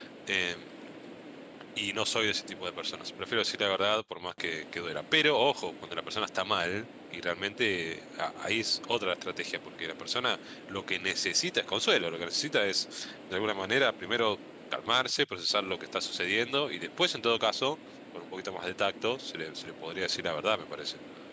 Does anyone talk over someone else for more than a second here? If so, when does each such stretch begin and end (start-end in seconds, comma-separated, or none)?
none